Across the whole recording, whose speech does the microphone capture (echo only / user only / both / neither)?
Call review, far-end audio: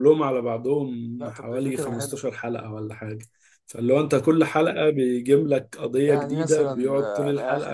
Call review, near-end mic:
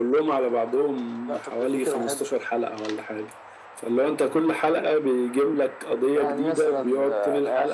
echo only